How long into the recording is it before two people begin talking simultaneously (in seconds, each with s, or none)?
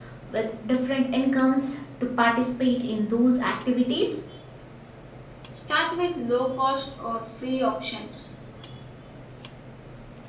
none